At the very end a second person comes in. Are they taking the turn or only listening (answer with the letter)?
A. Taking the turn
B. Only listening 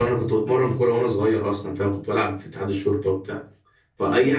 B